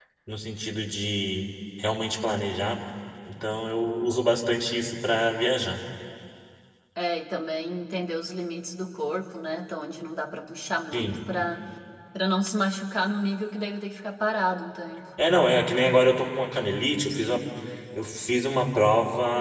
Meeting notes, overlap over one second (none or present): none